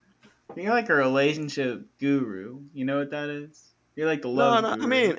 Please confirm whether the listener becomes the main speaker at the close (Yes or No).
Yes